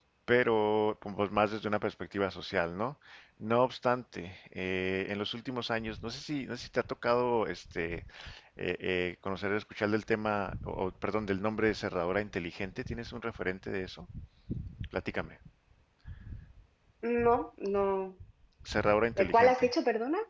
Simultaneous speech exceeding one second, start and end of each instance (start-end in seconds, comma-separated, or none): none